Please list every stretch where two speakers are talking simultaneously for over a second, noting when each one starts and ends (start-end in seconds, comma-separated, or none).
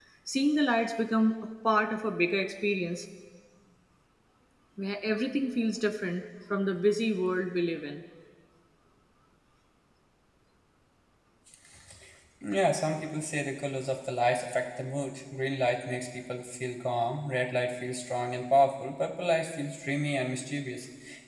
none